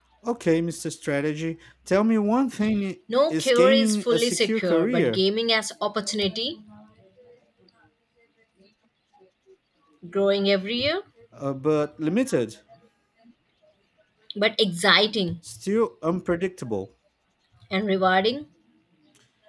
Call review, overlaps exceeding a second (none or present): present